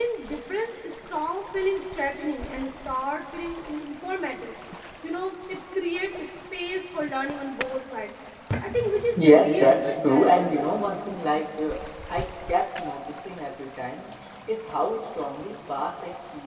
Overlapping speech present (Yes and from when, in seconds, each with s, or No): Yes, from 9.2 s